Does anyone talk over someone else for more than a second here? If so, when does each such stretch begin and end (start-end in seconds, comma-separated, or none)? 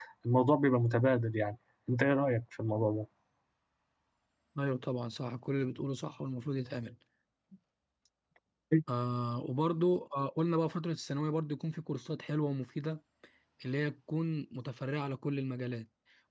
none